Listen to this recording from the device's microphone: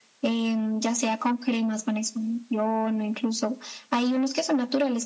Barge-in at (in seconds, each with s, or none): none